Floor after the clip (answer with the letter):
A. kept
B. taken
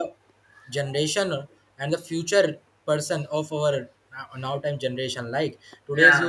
A